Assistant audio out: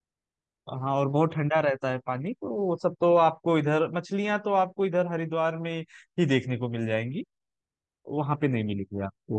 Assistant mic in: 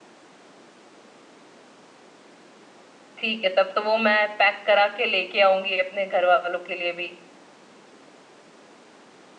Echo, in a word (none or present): none